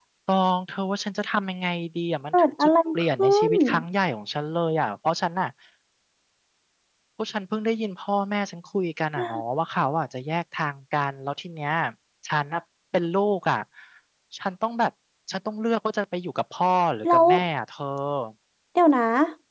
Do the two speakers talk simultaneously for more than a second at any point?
Yes, from 2.3 s

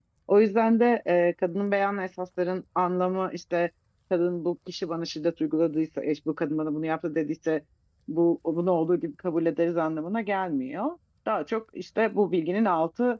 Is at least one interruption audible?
No

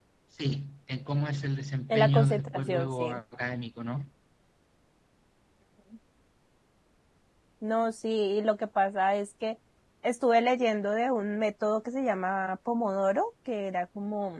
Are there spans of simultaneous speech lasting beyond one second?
Yes, from 1.9 s

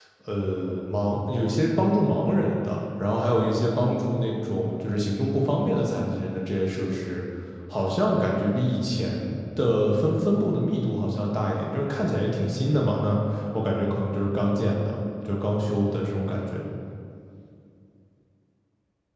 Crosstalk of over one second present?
No

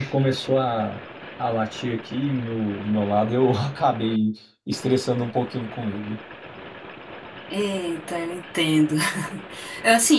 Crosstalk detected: No

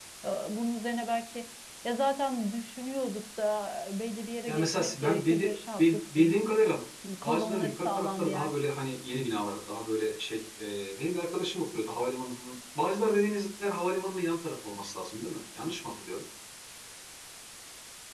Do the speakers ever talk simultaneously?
Yes, from 4.5 s

